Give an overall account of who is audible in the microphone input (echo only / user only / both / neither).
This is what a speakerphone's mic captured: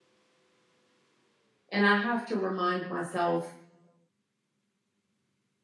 user only